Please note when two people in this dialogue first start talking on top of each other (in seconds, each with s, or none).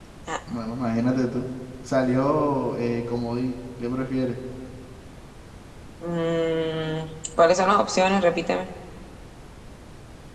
none